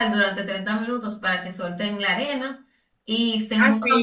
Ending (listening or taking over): taking over